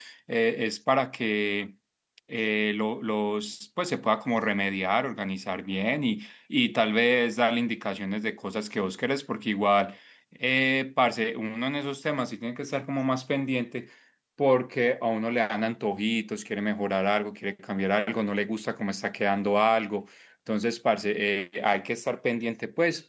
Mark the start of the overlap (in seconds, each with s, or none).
none